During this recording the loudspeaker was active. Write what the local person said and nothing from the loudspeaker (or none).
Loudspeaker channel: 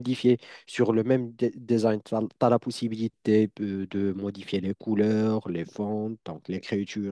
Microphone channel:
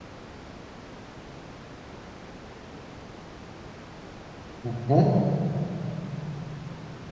Mhm.